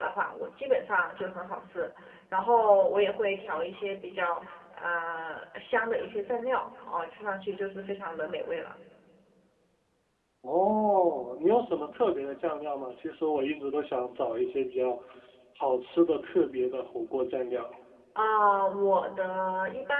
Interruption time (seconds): none

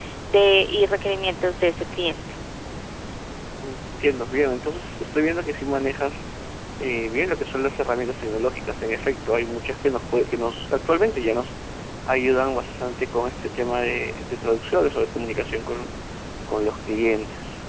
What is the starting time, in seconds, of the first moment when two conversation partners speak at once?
none

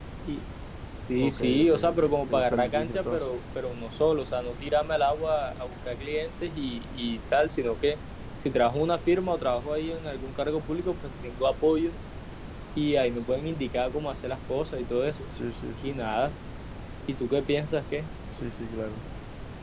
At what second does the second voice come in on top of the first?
1 s

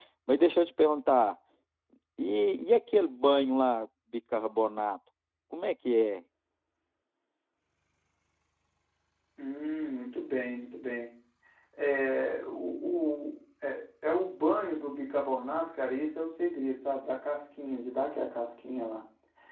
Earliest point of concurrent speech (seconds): none

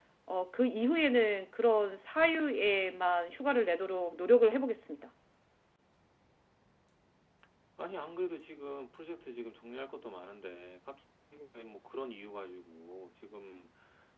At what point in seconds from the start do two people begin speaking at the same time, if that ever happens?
none

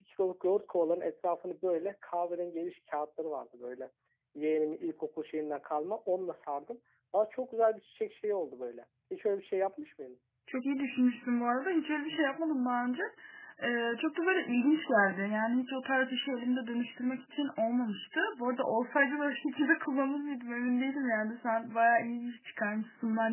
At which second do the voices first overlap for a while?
none

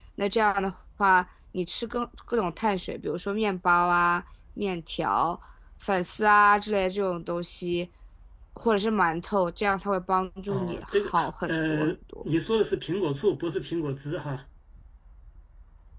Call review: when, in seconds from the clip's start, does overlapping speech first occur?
10 s

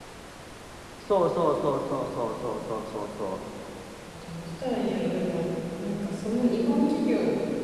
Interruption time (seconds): none

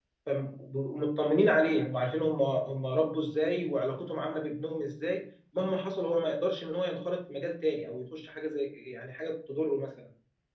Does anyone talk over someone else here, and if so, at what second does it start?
none

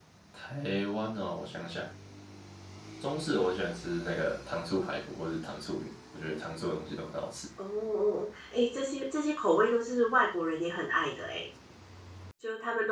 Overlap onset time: none

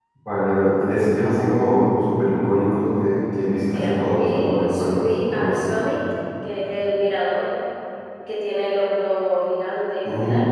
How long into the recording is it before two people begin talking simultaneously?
4 s

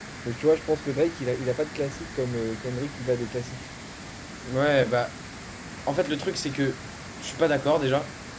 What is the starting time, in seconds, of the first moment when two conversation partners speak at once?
none

